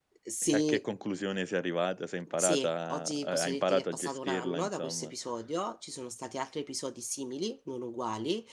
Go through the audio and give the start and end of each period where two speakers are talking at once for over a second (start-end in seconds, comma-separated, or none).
2.4-5.1